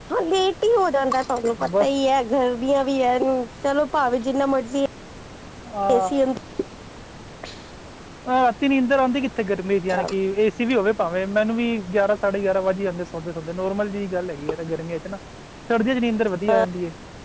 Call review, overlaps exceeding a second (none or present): none